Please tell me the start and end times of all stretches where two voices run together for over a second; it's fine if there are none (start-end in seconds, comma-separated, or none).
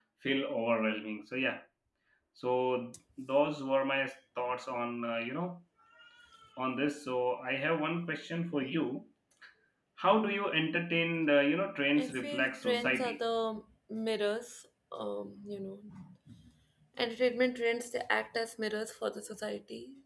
12.0-13.2